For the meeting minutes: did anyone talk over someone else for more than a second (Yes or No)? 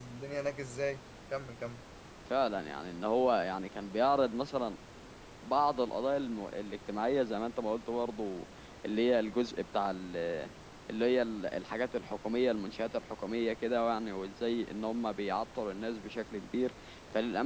No